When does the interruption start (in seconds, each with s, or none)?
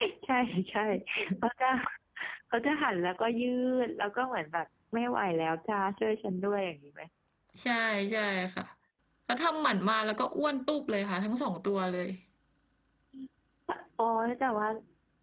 none